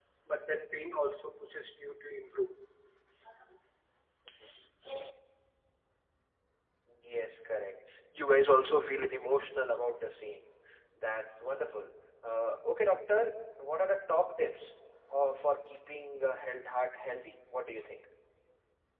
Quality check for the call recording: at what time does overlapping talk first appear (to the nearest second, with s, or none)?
none